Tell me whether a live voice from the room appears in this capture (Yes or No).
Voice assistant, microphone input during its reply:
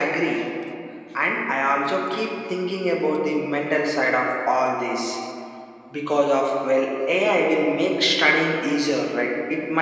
No